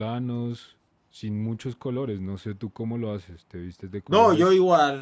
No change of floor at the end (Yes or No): No